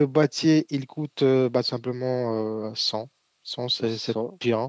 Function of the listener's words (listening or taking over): taking over